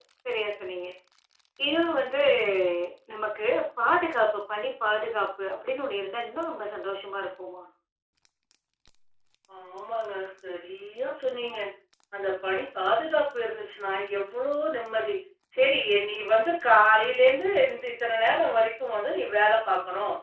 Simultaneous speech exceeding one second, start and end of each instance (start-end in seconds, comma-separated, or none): none